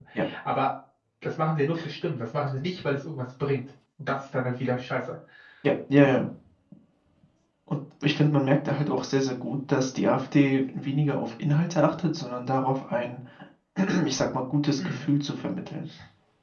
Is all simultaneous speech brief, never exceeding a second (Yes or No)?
Yes